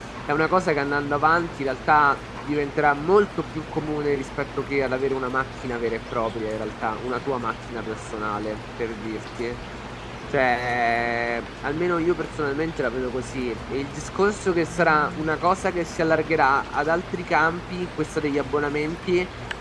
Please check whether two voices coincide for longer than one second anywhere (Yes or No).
No